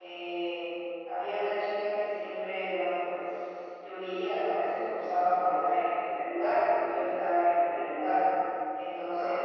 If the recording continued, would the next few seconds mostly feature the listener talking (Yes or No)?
No